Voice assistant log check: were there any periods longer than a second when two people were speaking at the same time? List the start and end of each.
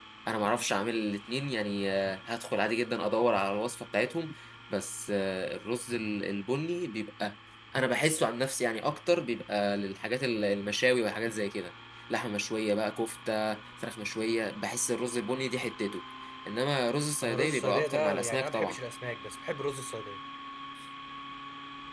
17.2-18.8

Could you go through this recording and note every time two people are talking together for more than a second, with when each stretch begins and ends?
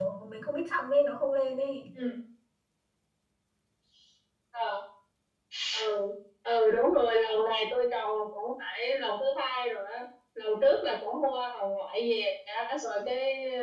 none

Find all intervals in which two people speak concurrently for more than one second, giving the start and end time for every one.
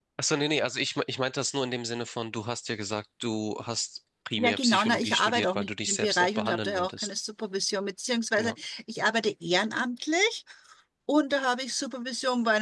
4.4-7.1

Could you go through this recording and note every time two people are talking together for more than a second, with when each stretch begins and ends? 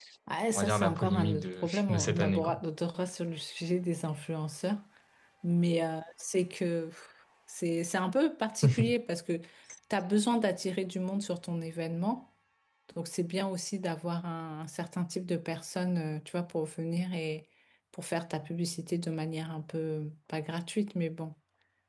0.6-2.5

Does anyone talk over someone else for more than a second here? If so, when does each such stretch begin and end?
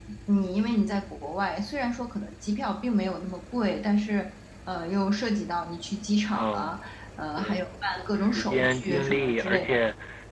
8.3-9.7

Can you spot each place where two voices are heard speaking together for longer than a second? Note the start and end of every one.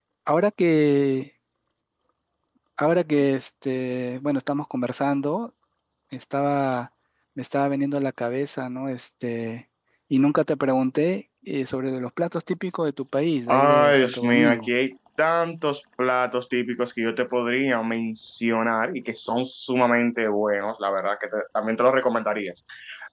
13.5-14.7

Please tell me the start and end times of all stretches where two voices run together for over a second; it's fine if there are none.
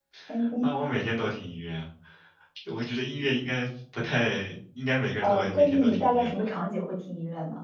5.2-6.4

